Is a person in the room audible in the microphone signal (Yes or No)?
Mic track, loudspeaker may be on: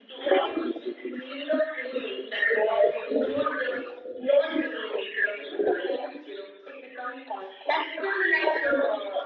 No